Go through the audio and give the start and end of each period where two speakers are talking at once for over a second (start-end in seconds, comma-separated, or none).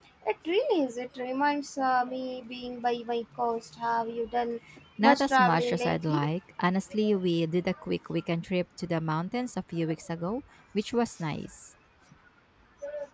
5.0-6.3